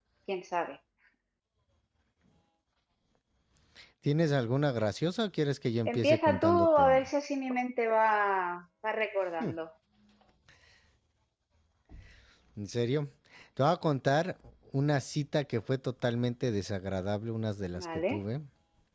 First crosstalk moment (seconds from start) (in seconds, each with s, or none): 5.9 s